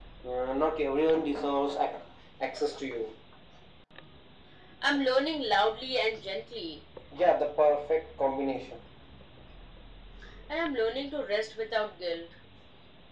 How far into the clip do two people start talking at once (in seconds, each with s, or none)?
none